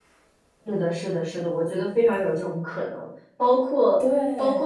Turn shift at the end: No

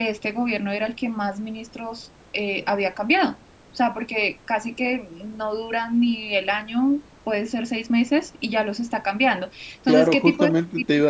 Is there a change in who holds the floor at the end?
Yes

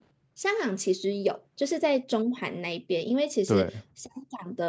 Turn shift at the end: No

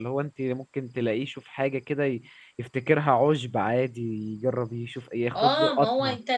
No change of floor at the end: No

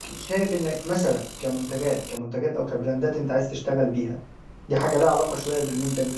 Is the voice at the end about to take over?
No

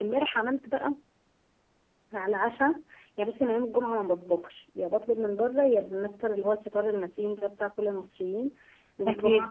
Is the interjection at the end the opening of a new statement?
No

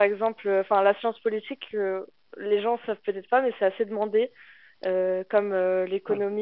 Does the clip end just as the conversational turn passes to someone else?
No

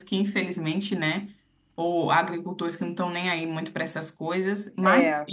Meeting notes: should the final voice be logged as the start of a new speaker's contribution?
No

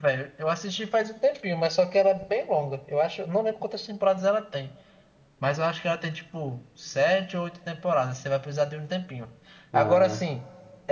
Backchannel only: Yes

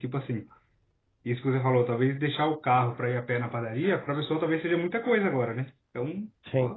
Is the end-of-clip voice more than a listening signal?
No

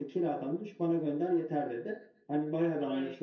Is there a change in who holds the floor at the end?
No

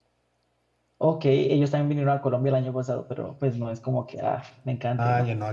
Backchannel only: No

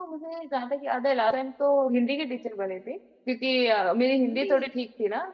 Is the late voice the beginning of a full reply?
No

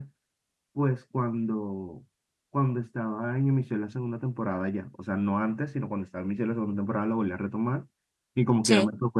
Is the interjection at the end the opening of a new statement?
No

